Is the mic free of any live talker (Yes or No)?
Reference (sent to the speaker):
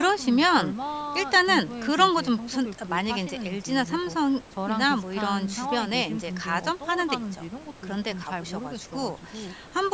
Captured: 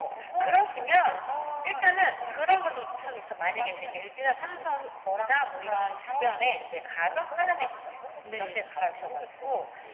No